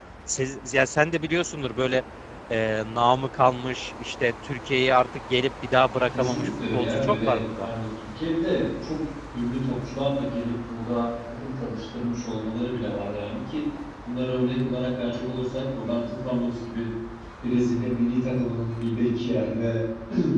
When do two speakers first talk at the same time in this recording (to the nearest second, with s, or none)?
6 s